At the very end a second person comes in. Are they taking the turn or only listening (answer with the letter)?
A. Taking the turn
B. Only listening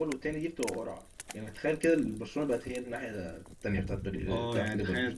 A